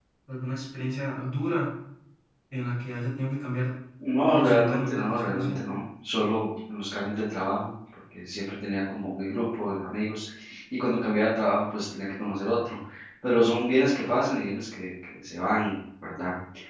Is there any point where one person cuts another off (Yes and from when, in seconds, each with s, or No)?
Yes, from 4.3 s